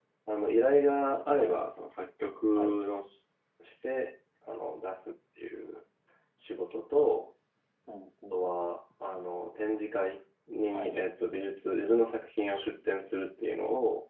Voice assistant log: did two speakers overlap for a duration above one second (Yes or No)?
No